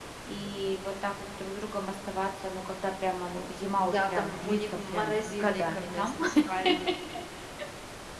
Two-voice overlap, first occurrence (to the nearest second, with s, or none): 4 s